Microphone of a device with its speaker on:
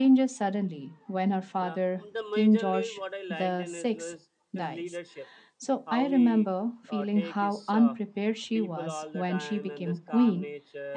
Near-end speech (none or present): present